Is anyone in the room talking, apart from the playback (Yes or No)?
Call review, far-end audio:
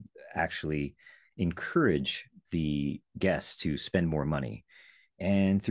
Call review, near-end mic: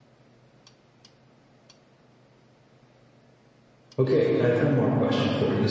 Yes